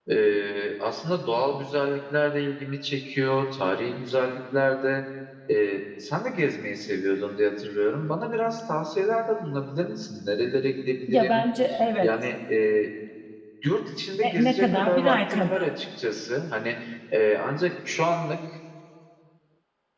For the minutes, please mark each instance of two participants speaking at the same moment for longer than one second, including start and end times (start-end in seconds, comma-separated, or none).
14.2-15.7